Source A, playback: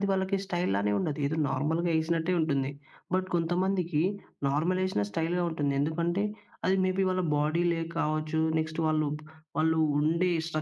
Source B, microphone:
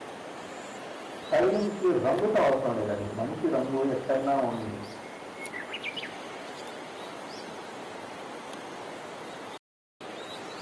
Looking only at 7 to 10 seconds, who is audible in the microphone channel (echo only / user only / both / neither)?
neither